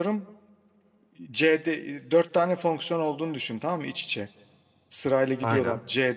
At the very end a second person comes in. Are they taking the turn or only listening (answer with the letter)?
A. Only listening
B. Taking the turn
A